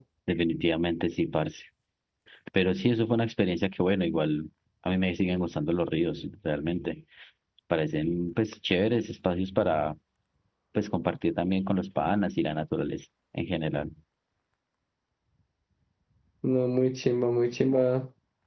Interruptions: none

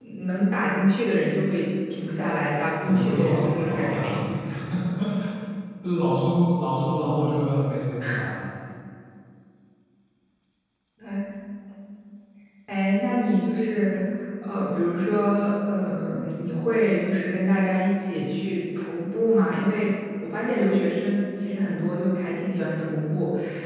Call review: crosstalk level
present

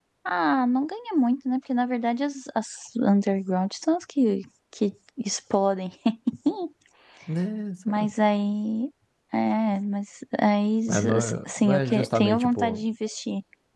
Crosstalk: present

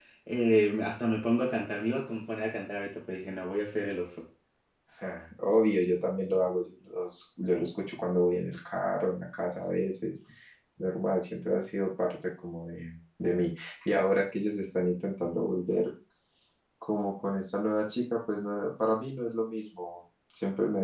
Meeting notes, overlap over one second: none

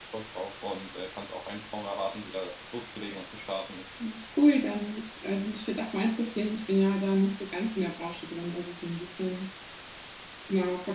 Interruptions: none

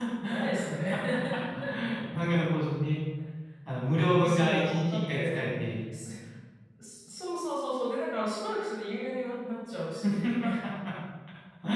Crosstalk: present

